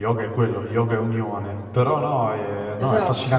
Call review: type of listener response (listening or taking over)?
listening